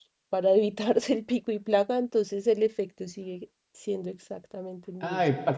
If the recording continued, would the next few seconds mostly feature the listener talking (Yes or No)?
Yes